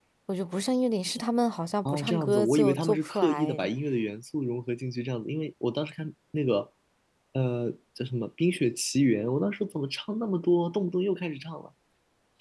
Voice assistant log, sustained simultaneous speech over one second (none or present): present